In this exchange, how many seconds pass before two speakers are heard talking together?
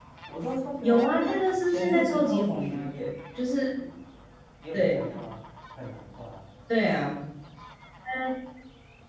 0.8 s

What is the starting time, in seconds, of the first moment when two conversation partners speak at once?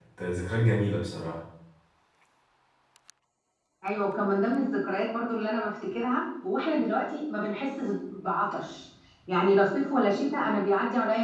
none

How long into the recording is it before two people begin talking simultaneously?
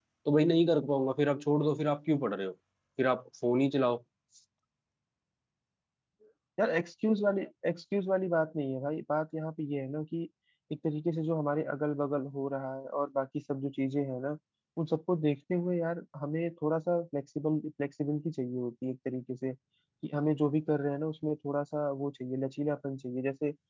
none

